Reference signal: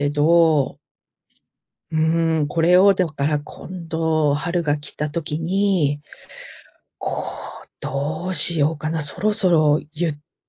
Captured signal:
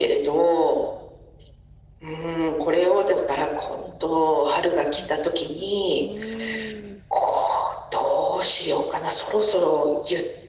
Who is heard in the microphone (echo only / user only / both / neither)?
both